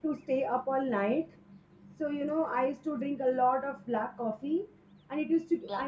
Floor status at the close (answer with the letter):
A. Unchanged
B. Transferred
A